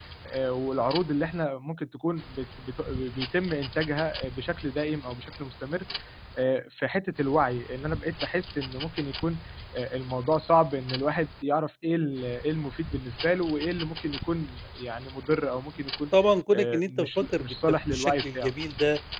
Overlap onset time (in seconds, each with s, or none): 16.5 s